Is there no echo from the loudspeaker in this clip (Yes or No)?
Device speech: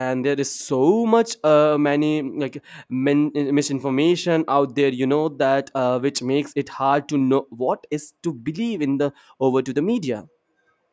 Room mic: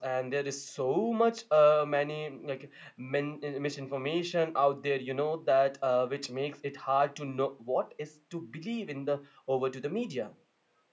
No